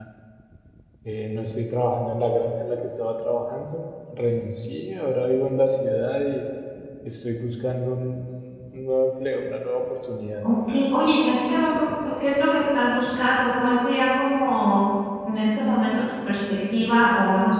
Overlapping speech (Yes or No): No